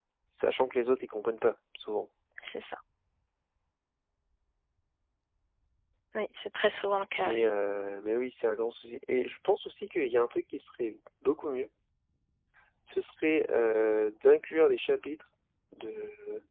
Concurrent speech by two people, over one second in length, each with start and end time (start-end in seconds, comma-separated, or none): none